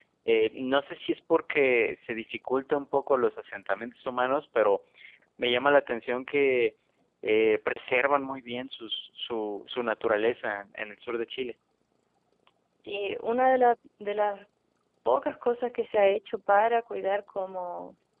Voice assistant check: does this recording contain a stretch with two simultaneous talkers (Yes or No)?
No